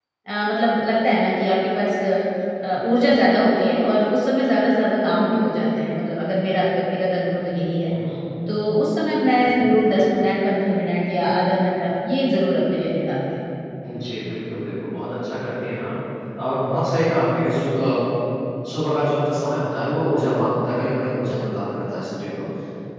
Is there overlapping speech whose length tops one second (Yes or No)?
No